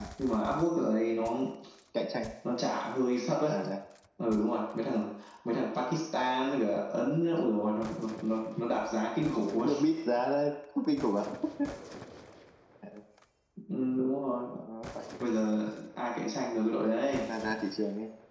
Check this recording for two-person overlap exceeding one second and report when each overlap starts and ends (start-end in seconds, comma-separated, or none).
none